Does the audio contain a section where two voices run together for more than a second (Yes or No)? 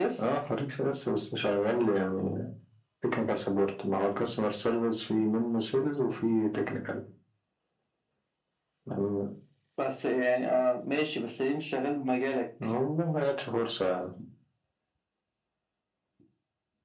No